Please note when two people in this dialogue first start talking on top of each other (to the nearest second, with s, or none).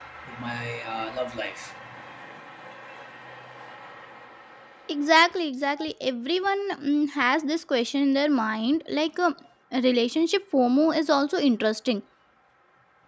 none